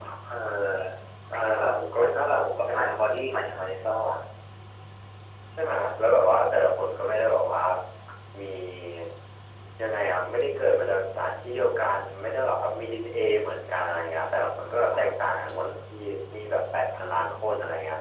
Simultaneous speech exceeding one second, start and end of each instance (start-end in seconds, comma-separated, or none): 1.5-2.7